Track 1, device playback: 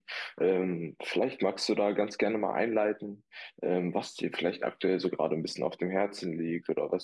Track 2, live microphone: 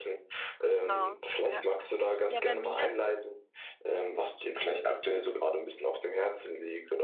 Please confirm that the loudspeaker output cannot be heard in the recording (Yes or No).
No